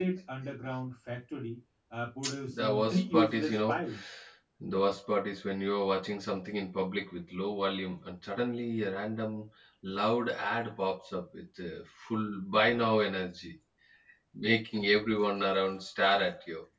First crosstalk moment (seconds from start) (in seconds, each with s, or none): 2.2 s